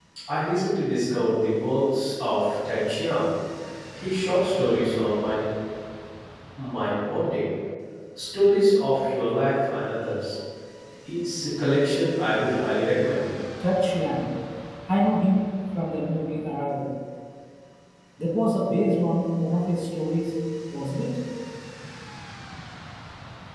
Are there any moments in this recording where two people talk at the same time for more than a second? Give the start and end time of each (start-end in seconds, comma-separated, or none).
none